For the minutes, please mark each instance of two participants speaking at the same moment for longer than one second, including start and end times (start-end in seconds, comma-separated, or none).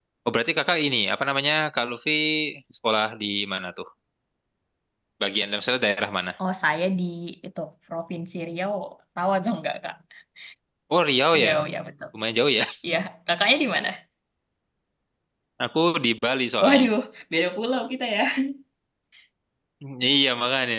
none